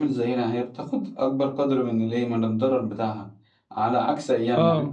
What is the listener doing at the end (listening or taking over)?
listening